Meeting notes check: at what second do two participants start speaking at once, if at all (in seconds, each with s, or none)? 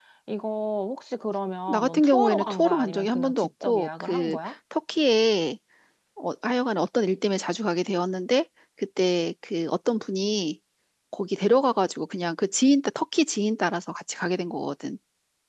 1.7 s